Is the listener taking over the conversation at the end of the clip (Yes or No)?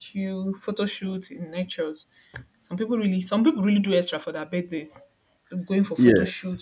No